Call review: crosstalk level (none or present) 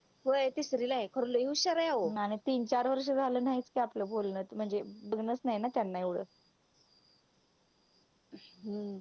none